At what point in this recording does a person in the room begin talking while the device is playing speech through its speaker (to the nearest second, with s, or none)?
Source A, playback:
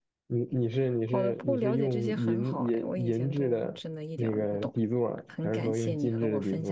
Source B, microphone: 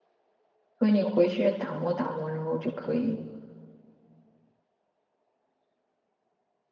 1 s